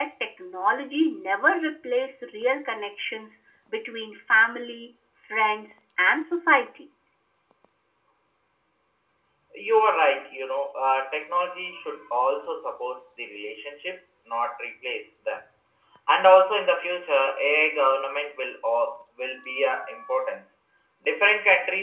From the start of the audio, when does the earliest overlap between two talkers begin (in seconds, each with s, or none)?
none